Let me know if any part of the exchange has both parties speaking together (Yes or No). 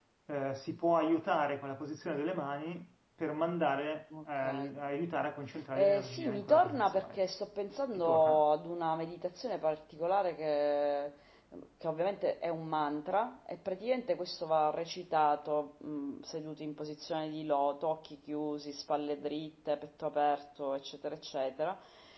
Yes